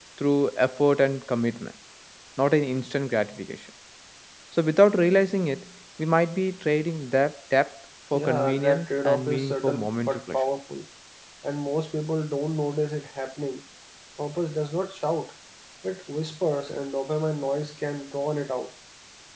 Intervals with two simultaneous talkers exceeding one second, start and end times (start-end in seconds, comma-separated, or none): 8.1-10.4